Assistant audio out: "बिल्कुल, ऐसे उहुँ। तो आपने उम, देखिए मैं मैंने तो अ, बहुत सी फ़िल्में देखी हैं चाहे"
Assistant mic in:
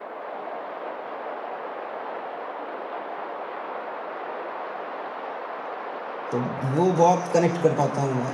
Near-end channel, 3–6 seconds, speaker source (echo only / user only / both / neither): neither